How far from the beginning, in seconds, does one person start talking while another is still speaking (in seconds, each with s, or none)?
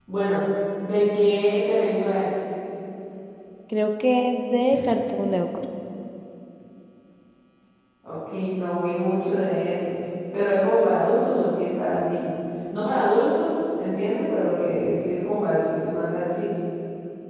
none